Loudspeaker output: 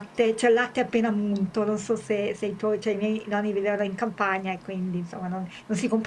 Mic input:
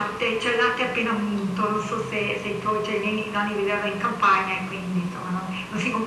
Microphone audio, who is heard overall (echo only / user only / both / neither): echo only